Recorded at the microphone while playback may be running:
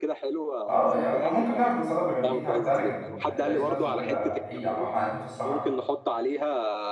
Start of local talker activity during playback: 0.7 s

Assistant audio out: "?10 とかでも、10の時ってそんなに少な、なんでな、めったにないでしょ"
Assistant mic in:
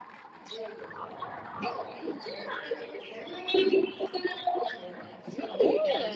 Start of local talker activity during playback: 5.2 s

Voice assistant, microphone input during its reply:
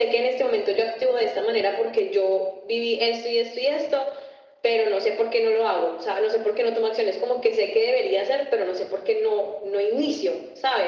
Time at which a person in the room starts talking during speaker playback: none

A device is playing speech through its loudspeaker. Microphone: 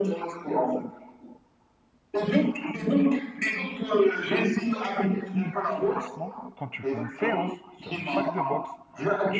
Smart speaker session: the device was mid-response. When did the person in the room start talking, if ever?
6.0 s

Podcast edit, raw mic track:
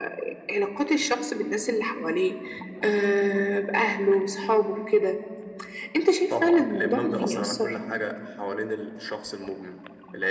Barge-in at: 7.1 s

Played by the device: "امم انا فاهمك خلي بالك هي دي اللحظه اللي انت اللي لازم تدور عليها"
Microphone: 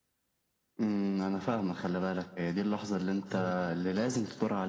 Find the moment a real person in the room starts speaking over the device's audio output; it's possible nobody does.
3.3 s

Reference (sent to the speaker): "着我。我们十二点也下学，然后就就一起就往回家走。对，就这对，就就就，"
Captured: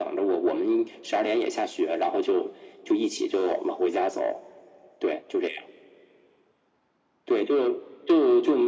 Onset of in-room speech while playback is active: none

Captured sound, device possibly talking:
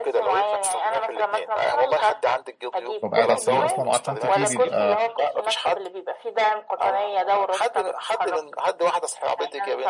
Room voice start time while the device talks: 3.0 s

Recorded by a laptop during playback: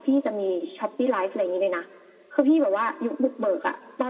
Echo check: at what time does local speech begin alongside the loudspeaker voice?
none

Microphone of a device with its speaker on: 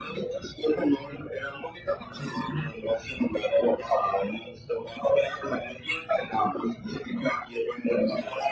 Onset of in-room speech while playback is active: none

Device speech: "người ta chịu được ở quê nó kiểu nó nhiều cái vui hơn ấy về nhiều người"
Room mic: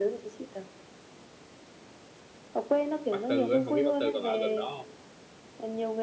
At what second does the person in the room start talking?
3.1 s

